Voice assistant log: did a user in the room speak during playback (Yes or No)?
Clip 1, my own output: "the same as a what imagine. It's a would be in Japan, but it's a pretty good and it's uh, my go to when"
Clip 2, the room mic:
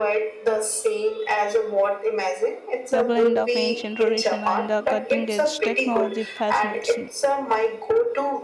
Yes